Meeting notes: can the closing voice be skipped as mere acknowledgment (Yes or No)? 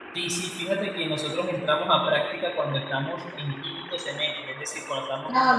No